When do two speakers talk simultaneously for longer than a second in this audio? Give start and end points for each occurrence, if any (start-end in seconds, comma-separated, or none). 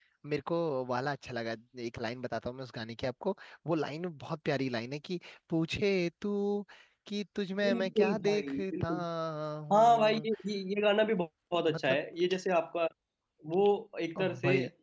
7.6-8.9